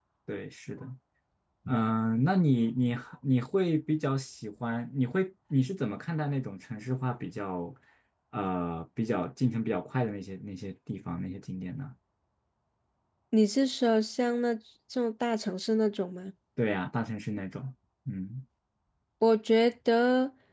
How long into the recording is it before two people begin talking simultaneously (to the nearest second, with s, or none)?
none